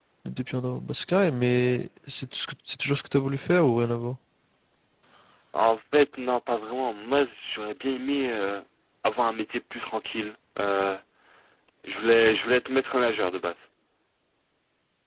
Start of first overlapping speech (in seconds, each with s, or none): none